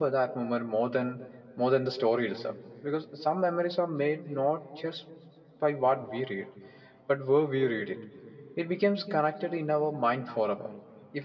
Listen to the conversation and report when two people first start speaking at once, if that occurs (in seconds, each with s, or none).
none